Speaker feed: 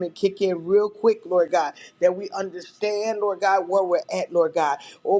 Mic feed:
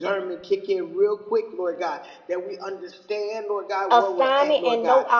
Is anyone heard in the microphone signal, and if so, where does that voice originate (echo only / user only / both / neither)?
both